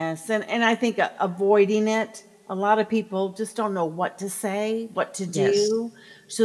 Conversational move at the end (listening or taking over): listening